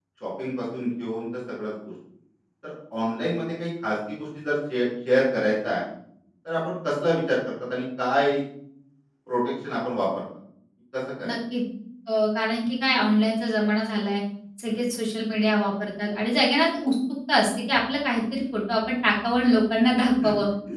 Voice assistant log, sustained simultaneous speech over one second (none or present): none